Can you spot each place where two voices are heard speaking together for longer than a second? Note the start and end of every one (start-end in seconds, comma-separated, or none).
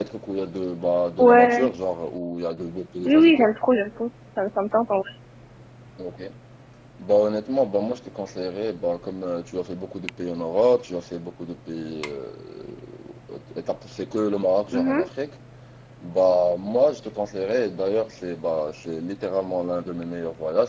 none